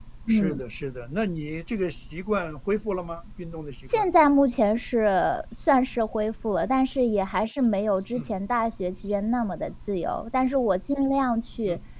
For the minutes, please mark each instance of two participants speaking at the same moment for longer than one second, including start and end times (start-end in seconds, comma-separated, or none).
none